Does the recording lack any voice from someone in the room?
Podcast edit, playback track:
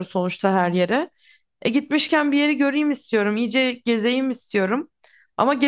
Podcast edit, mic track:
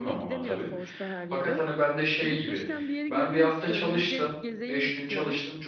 No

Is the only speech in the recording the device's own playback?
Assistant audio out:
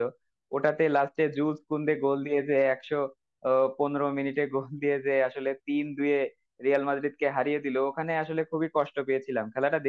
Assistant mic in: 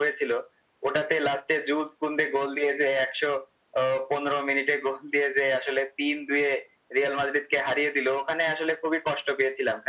Yes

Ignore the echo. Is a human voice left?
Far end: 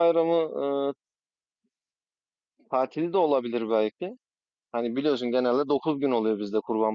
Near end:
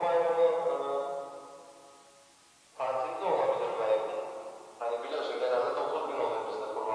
No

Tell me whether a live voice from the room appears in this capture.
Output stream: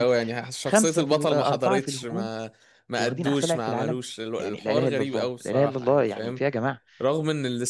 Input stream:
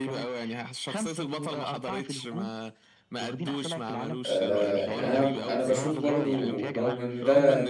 Yes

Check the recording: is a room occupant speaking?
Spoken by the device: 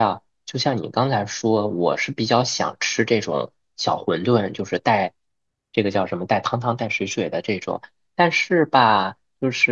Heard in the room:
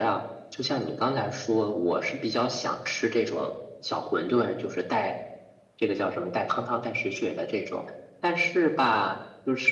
No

